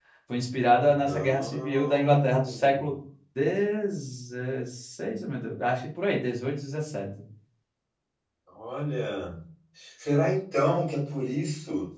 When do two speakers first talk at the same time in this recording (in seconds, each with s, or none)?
0.9 s